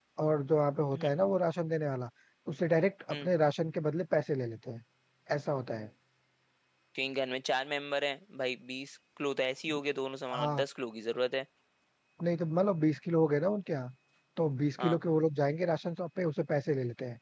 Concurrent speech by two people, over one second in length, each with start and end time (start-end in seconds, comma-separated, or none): none